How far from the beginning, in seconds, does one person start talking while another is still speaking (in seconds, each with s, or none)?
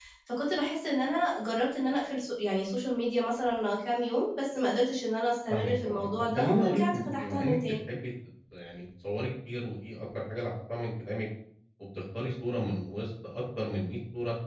5.5 s